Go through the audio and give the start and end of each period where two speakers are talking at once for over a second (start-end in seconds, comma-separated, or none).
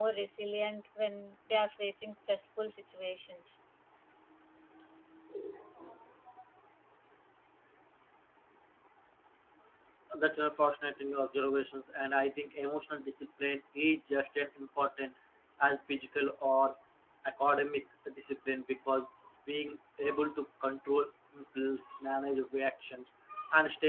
none